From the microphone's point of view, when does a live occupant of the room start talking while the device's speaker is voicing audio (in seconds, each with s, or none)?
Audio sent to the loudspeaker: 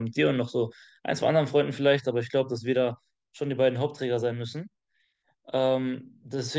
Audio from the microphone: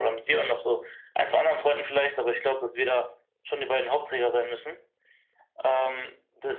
none